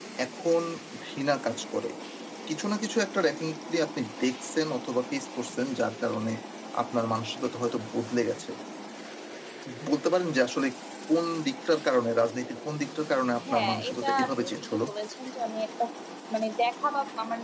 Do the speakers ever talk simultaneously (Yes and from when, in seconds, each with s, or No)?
Yes, from 13.5 s